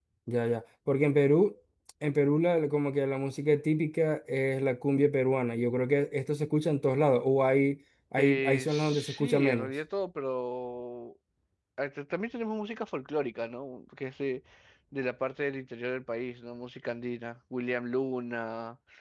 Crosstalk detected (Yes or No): Yes